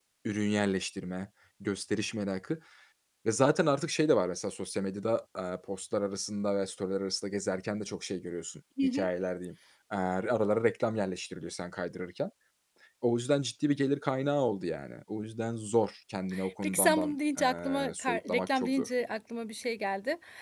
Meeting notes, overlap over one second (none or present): present